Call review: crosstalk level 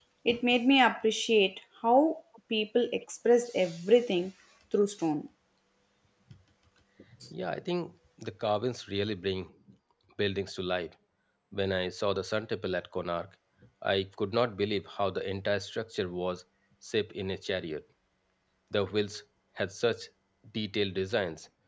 none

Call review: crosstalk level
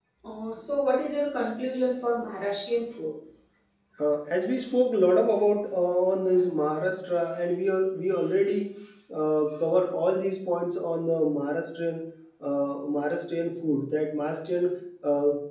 none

